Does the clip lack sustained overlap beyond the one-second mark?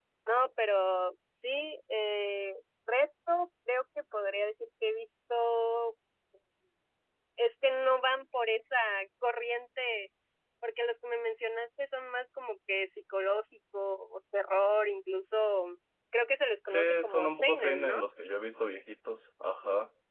No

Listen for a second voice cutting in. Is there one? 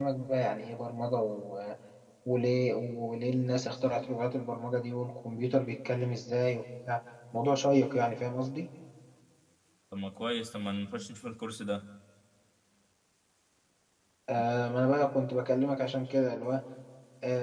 No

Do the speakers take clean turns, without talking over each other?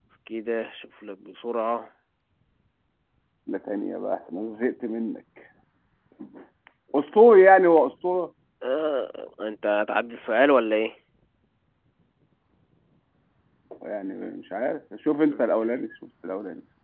Yes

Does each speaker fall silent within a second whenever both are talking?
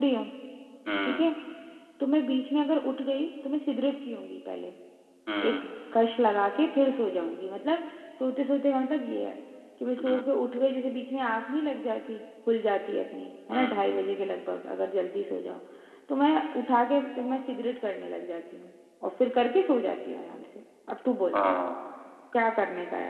Yes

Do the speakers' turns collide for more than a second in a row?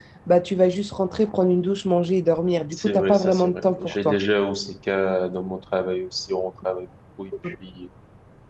Yes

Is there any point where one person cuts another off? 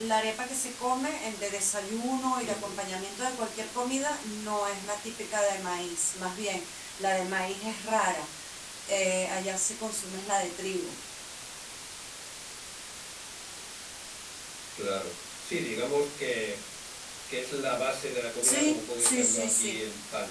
Yes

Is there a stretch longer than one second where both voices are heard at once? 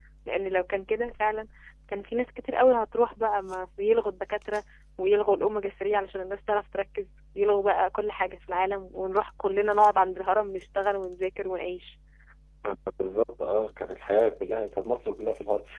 No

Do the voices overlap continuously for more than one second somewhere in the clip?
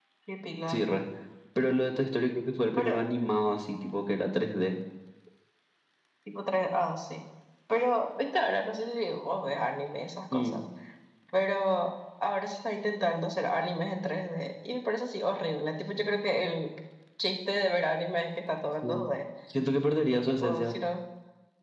No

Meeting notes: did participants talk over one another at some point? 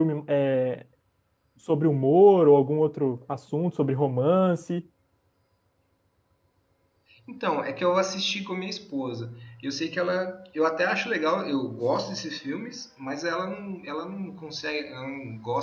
No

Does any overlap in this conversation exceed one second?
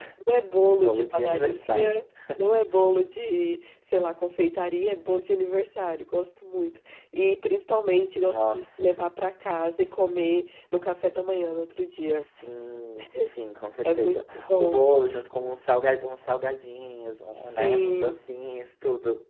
Yes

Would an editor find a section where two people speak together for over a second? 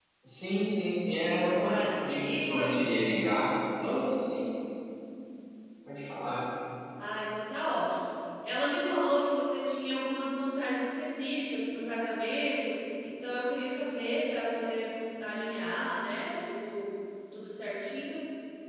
Yes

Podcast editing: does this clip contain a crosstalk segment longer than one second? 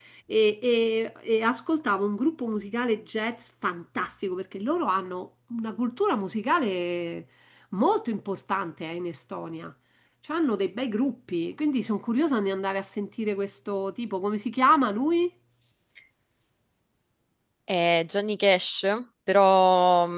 No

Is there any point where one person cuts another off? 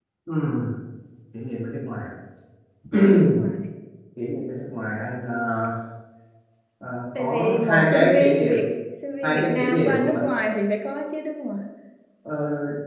Yes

